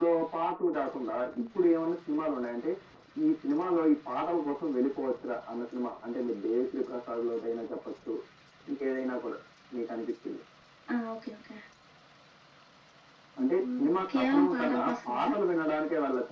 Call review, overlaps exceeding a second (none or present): present